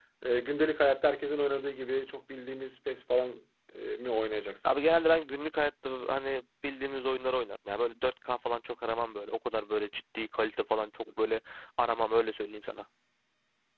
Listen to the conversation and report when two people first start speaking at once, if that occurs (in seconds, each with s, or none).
none